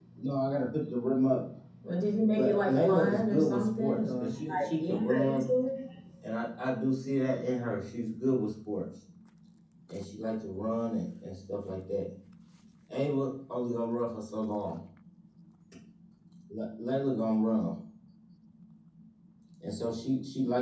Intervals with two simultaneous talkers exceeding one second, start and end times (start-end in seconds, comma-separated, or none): 2.3-5.5